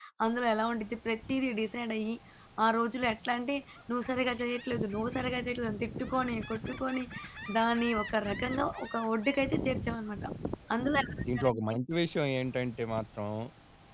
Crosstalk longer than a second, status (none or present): none